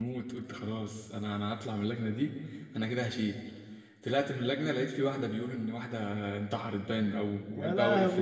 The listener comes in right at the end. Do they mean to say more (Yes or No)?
No